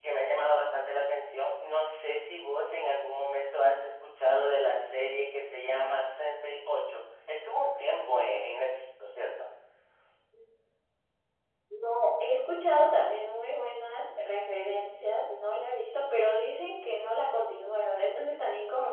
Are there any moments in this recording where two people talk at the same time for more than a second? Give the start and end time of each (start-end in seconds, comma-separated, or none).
none